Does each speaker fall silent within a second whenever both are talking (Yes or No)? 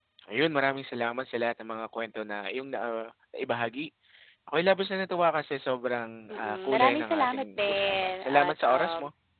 No